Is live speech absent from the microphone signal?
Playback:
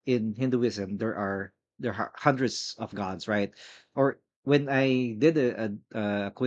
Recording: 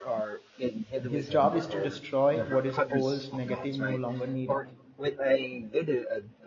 No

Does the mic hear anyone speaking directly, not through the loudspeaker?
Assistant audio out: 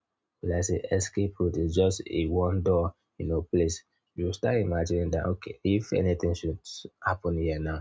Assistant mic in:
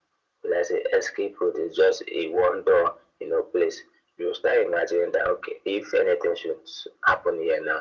No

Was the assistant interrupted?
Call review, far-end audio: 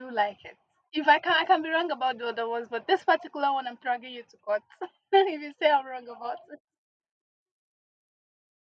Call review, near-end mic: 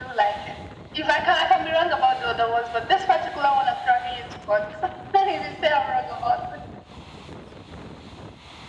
No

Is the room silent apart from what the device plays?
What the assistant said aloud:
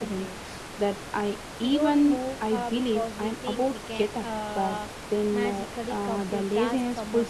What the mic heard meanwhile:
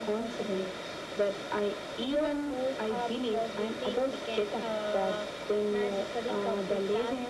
Yes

